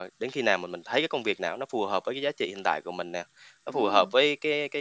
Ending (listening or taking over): listening